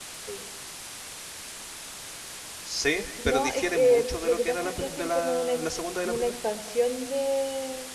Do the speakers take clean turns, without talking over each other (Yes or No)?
No